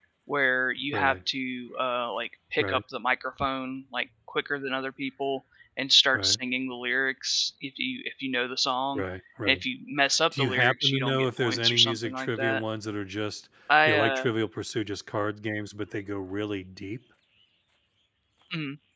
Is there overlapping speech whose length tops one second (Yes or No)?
Yes